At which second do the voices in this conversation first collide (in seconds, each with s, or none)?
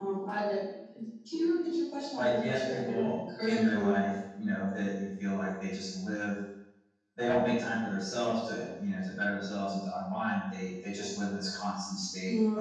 2.2 s